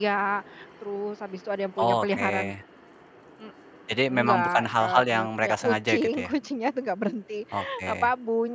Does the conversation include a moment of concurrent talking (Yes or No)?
Yes